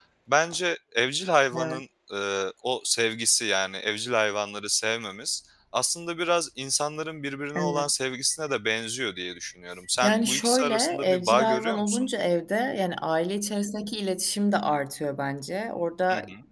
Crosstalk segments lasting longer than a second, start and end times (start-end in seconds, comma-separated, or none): 10.0-12.1